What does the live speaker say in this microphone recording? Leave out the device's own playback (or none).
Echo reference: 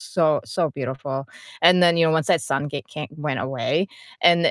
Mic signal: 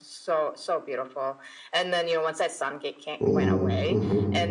Mhm, mhm.